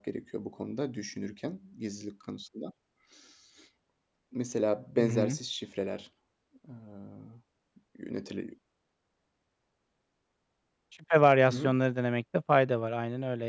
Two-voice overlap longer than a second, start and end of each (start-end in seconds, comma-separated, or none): none